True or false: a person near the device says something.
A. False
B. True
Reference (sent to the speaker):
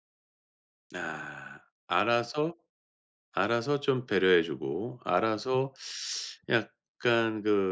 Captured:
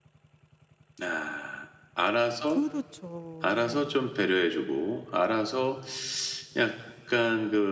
B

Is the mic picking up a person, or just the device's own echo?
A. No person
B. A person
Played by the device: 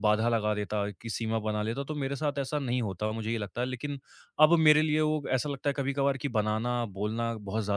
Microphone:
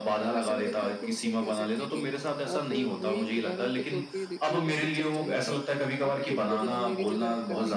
B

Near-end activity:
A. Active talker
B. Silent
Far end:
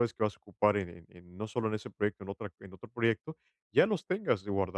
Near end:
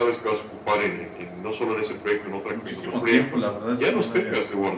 A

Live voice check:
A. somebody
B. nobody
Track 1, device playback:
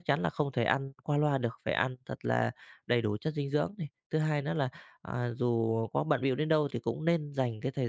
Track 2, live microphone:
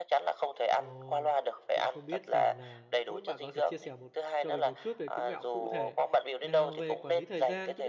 A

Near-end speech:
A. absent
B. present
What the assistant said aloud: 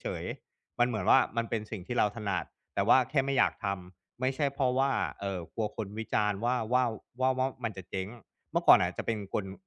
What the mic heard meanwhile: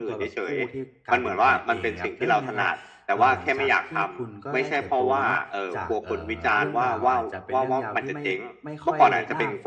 B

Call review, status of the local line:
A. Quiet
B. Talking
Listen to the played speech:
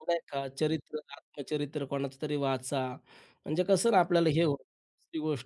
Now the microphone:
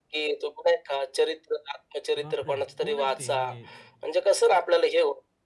B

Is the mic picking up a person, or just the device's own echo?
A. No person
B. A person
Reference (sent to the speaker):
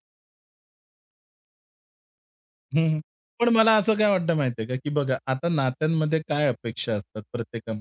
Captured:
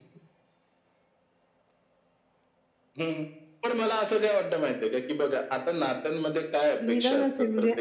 B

